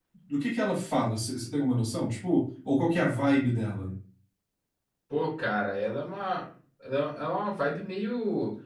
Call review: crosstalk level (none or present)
none